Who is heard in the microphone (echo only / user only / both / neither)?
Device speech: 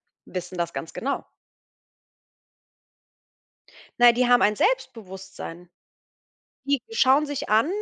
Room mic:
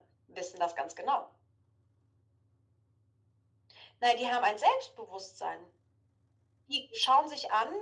echo only